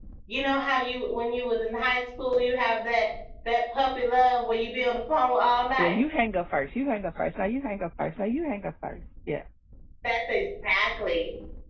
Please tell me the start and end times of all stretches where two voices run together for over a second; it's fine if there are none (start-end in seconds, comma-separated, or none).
none